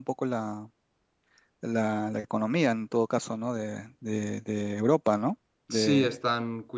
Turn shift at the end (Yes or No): Yes